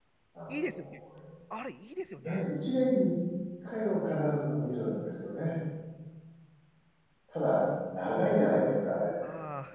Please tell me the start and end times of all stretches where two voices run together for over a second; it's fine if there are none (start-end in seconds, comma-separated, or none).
none